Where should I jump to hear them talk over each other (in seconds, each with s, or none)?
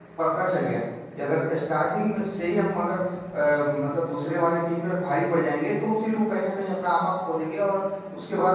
none